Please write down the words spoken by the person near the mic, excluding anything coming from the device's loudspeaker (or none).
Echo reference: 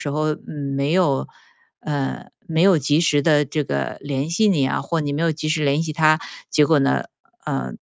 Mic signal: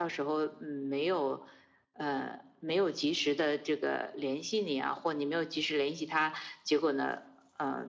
none